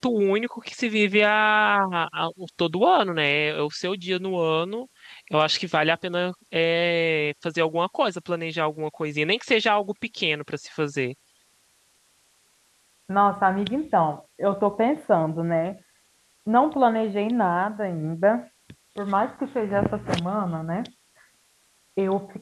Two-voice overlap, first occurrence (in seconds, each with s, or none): none